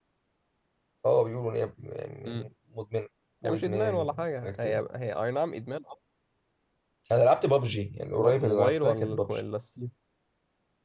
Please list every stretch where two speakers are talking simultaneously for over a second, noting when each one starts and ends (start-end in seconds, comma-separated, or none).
3.4-4.8, 8.2-9.4